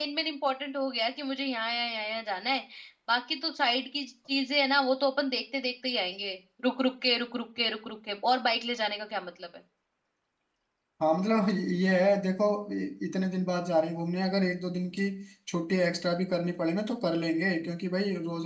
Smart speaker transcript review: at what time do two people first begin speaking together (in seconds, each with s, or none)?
none